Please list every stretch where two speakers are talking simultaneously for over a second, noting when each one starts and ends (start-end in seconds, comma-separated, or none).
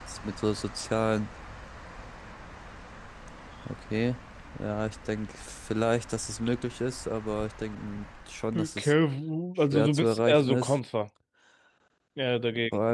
9.6-10.8